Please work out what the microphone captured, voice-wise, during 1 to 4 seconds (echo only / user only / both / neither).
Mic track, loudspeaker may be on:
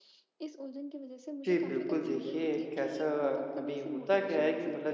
both